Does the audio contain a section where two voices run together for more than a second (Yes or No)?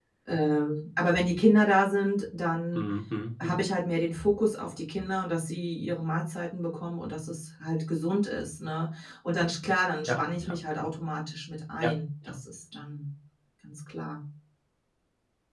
No